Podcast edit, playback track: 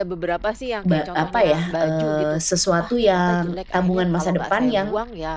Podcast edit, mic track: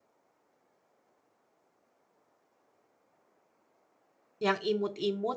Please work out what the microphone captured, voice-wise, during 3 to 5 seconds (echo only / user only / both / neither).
user only